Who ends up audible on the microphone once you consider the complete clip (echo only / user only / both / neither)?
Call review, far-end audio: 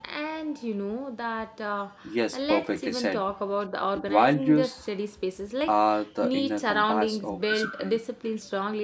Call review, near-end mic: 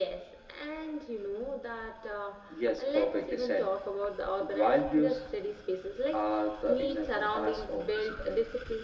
echo only